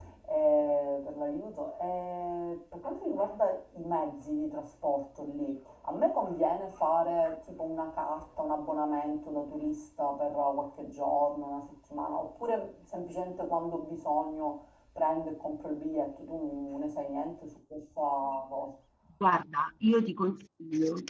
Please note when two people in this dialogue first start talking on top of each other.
none

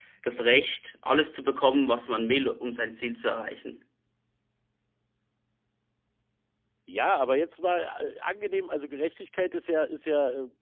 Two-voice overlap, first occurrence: none

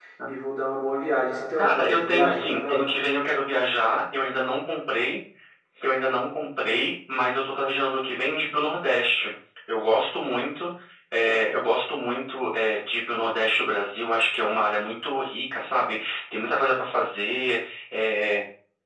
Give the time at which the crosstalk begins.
1.6 s

